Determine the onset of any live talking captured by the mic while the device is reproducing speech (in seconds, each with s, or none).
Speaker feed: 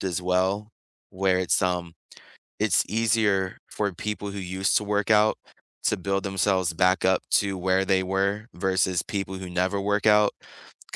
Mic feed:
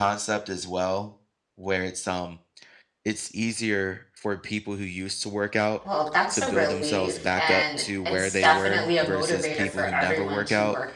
5.8 s